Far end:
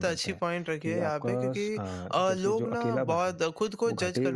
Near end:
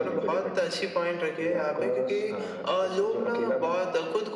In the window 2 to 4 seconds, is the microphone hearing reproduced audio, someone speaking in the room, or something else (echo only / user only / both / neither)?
echo only